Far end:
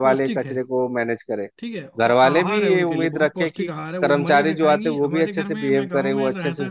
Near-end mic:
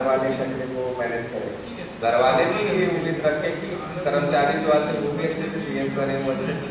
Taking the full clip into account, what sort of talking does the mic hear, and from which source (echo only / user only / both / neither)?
echo only